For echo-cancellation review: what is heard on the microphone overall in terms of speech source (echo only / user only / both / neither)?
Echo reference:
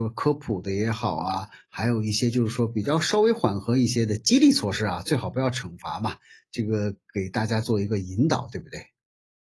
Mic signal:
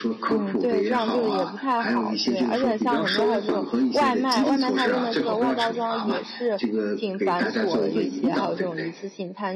both